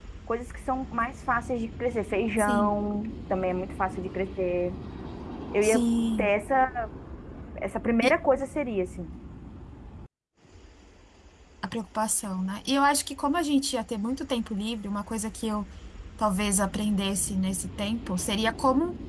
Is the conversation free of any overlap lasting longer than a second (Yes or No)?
Yes